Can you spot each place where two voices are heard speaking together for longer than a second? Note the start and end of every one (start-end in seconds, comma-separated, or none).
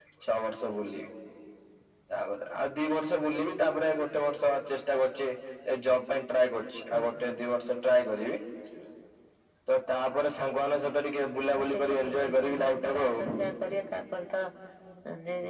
11.6-13.3